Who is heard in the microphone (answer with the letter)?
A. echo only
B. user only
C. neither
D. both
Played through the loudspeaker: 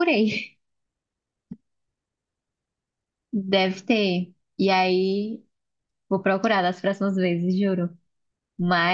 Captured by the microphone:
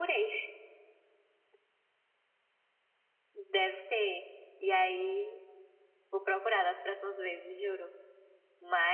A